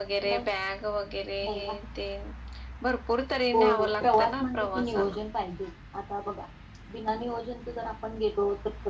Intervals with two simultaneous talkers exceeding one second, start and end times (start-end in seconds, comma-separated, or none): 3.8-5.2